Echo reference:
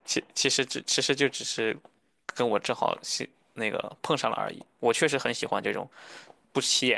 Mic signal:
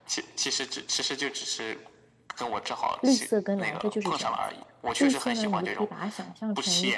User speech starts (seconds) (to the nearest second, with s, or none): 3 s